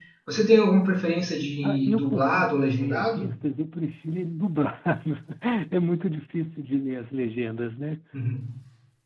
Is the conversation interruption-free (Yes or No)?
No